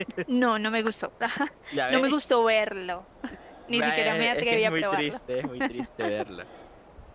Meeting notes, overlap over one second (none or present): present